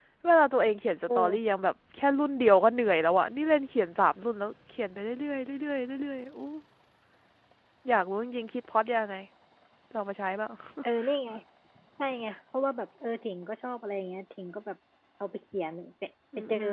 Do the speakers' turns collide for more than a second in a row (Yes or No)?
No